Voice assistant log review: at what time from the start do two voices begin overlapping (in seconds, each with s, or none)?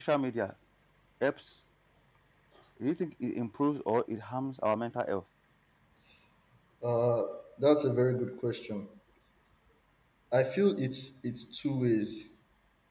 none